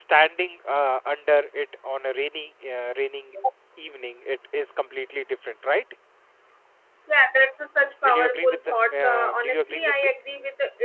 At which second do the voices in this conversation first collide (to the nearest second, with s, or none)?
8 s